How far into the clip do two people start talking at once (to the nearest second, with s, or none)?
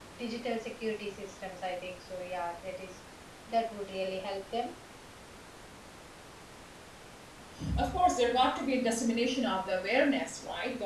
none